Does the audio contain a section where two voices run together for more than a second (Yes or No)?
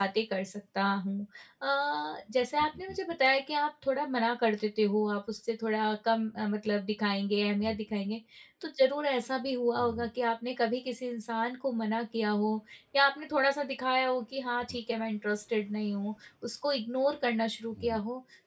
No